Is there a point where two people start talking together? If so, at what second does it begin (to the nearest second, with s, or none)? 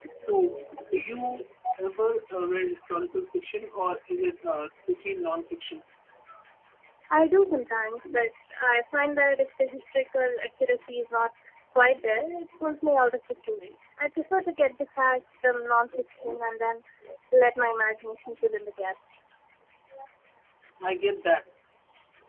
none